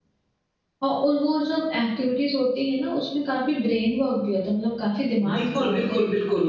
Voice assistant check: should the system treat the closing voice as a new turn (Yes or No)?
Yes